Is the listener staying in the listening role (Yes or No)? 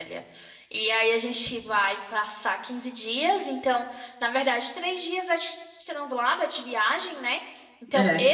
Yes